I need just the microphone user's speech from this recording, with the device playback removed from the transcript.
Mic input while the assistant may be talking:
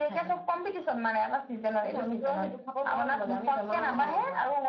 অ', অ',

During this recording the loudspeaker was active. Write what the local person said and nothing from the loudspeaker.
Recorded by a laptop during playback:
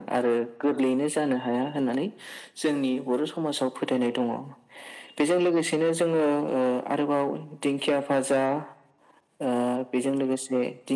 none

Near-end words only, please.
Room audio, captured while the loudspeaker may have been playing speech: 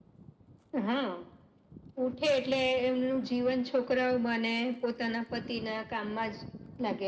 none

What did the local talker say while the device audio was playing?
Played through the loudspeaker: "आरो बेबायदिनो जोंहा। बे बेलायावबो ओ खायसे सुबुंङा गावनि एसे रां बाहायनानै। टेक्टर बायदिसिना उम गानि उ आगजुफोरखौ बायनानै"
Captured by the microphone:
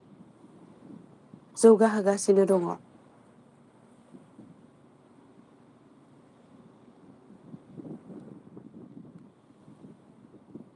जौगाहोगासिनो दङ।

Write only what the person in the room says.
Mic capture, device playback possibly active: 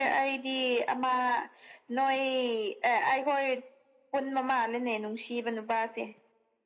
none

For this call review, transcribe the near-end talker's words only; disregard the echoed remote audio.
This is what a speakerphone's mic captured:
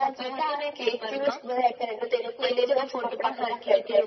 none

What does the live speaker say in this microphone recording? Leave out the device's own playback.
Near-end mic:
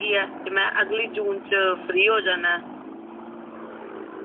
none

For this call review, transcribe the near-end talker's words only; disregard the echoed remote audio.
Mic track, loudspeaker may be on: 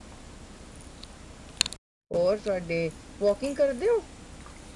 ਹੋਰ ਤੁਹਾਡੇ, ਵਾਕਿੰਗ ਕਰਦੇ ਹੋ।

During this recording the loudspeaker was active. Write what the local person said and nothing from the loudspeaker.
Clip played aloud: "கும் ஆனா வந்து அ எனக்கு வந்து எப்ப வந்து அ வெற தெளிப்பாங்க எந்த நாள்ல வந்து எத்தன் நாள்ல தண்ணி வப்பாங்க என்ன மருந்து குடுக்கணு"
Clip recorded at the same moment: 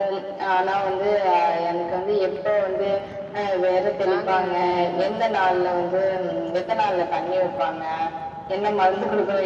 நாங்க ஜாலியா தா இருப்போ

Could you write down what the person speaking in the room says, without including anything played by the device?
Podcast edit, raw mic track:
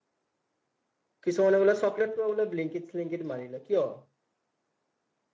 কিছুমানে বোলে চকলেটো বোলে ব্লিংকিট-চিলিংকিট মাৰিল লয় কিয়?

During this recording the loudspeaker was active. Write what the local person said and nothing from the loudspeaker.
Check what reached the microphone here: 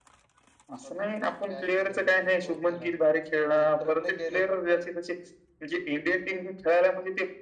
none

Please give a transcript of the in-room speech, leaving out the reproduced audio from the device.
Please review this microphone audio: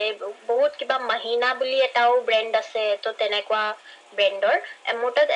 none

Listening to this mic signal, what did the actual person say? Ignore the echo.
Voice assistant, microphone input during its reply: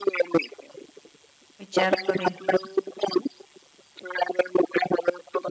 विचार करिन

